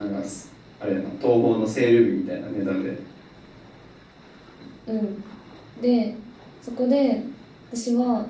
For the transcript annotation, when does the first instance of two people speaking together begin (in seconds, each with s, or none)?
none